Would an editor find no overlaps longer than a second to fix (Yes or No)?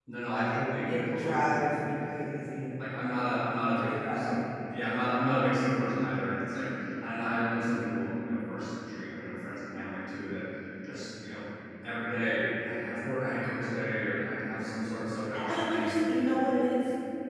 No